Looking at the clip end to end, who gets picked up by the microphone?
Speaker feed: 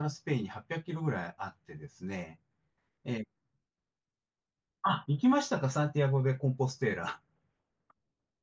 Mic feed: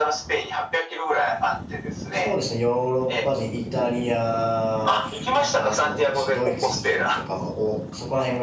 both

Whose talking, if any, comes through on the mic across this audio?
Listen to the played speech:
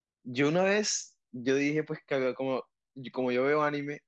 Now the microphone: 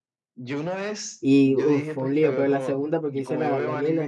both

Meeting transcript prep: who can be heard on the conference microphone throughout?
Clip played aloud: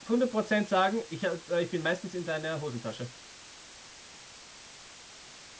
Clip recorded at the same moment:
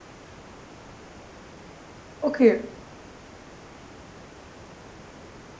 user only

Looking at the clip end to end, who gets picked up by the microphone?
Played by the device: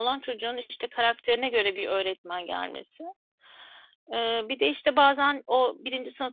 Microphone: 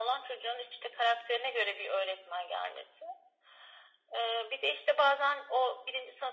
echo only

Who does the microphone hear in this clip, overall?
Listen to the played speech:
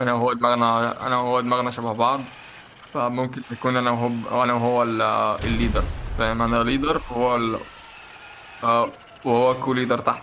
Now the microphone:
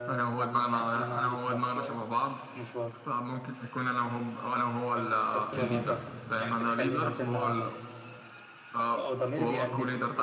both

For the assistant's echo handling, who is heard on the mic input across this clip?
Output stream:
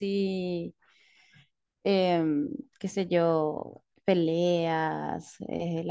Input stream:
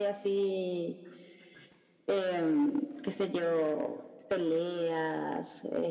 echo only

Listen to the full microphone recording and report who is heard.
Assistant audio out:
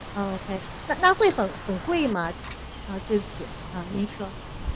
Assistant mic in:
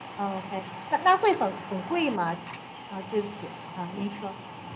echo only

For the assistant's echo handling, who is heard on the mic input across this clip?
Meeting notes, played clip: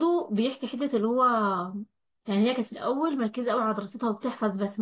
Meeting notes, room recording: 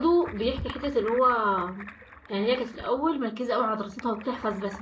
echo only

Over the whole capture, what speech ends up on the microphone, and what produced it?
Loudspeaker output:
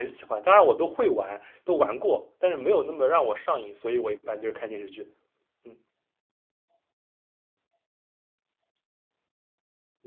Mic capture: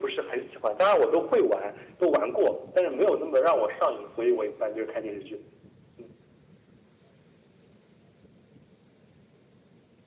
echo only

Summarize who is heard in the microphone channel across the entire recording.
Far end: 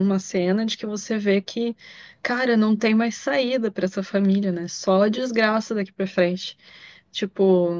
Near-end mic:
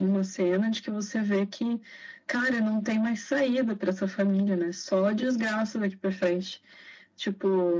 echo only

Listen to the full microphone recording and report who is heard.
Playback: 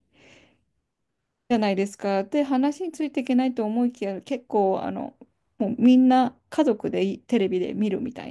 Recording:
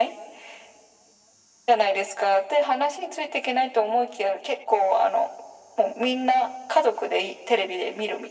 echo only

